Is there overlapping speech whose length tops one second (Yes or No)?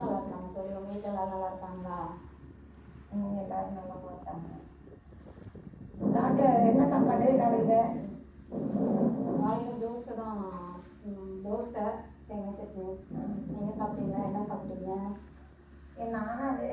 Yes